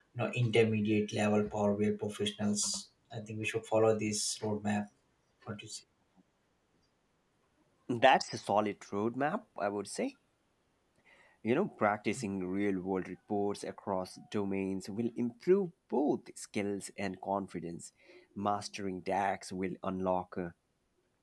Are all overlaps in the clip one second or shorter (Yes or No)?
Yes